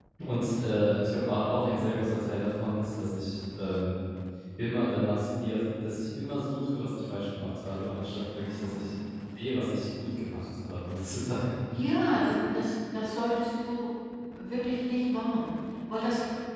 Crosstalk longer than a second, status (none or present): none